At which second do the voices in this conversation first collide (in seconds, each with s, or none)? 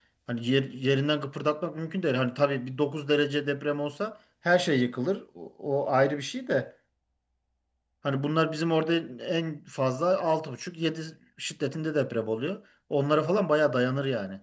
none